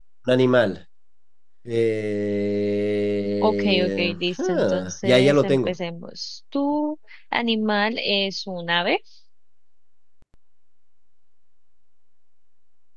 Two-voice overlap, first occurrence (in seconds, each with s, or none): 3.4 s